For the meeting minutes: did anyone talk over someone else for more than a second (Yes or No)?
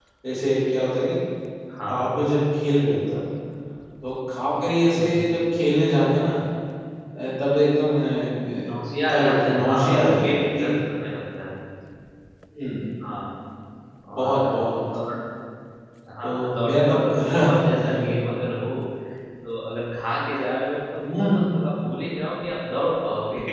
Yes